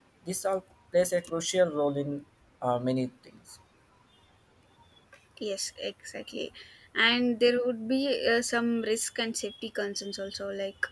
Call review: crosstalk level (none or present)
none